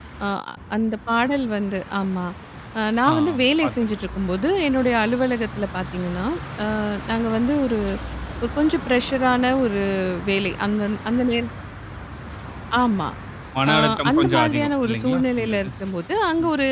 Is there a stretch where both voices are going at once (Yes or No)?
Yes